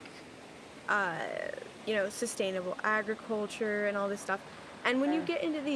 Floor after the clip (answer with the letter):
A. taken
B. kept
B